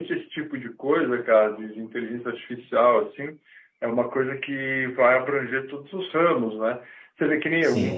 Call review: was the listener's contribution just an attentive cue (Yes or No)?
Yes